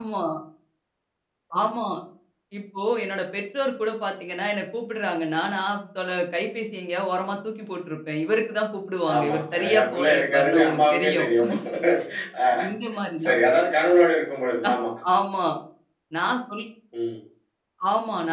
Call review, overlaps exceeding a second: present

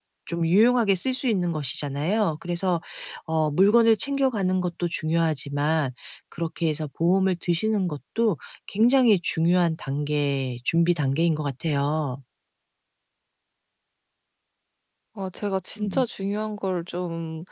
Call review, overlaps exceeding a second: none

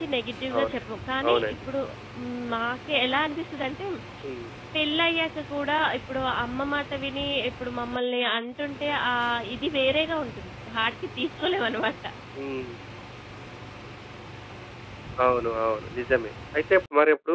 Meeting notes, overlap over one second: none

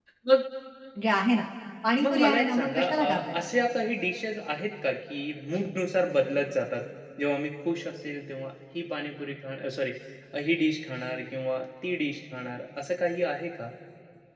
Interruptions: present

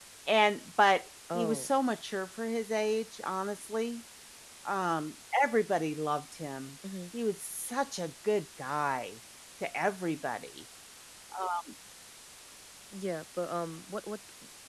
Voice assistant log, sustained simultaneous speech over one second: none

